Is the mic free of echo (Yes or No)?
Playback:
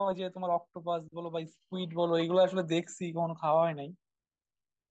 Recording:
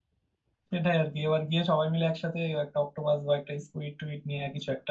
Yes